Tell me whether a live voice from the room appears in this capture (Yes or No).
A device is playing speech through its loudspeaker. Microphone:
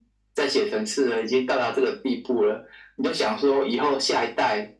No